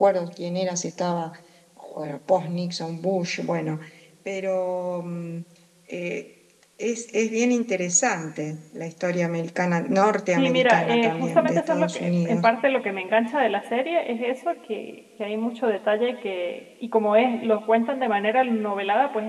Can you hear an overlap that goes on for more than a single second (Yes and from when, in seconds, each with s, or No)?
Yes, from 10.4 s